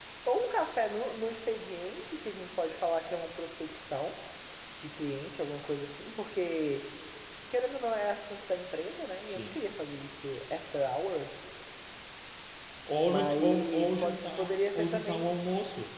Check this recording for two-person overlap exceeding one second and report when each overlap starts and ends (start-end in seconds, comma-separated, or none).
13.1-15.3